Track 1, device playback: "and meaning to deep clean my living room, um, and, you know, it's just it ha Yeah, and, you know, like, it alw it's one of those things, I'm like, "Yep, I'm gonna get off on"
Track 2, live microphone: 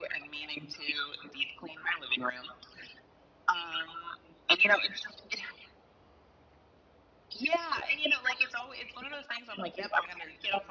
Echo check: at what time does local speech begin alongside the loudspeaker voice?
none

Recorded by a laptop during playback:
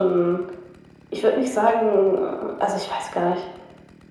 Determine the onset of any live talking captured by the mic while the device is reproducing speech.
none

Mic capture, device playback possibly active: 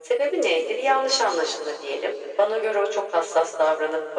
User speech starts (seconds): none

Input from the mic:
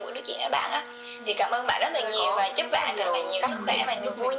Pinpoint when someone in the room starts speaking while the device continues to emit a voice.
3 s

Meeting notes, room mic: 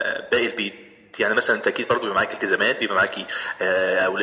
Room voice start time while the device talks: none

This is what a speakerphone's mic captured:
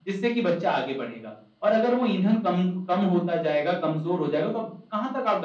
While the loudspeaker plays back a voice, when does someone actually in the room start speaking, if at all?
none

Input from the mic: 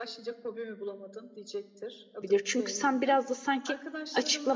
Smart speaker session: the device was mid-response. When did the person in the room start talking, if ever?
2 s

